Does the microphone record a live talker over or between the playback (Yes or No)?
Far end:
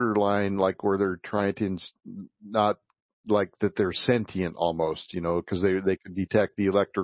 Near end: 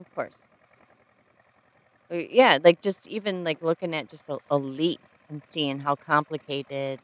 Yes